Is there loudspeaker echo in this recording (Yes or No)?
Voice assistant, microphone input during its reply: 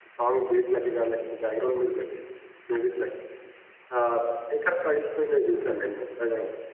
No